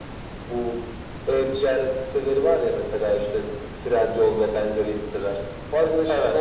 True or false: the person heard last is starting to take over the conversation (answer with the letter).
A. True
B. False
B